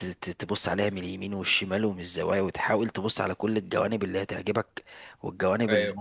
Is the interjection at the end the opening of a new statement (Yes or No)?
No